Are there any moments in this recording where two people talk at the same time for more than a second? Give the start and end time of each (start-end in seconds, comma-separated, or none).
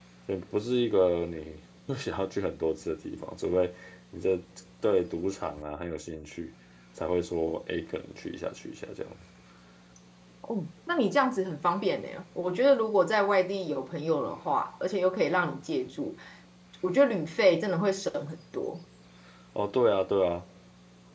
none